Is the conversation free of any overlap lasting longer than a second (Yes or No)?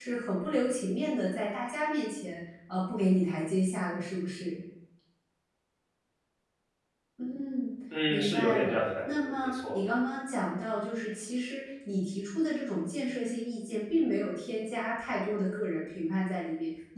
No